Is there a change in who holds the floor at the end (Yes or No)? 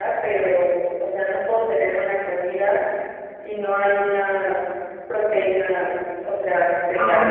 Yes